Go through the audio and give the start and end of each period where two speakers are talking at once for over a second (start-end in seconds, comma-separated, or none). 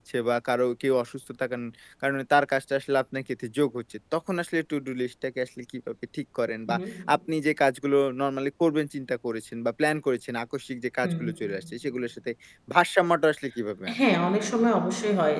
none